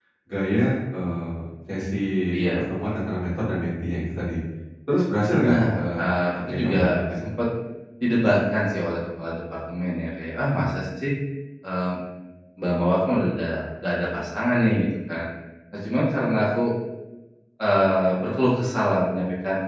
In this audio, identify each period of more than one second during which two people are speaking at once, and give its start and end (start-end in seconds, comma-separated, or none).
5.4-7.2